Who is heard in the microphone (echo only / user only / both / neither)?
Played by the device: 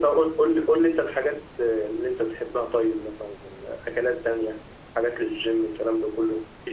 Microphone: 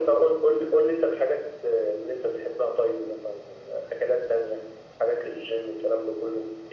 echo only